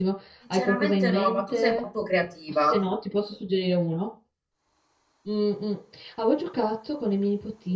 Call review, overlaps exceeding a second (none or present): present